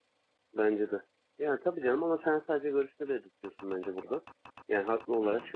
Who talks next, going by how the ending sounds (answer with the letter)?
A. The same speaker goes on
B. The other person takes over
A